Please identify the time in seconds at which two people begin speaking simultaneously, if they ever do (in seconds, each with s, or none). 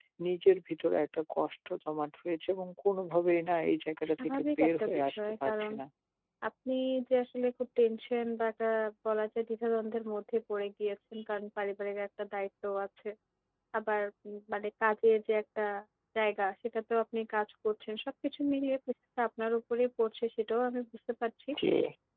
4.2 s